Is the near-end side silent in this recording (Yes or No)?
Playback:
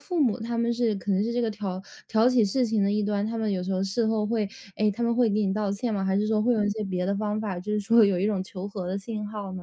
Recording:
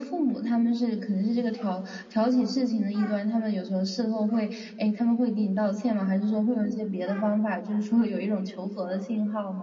Yes